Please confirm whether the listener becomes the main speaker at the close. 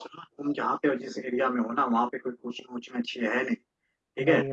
No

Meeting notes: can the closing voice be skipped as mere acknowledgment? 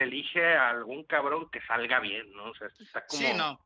No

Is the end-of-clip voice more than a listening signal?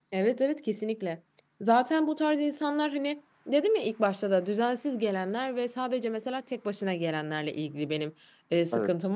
No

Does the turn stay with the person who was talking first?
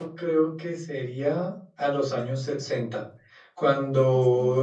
Yes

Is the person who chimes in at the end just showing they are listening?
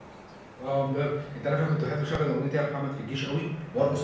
Yes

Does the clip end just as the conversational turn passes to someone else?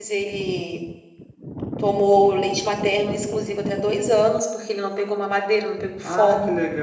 Yes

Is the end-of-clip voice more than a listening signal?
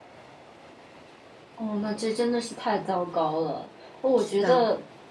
No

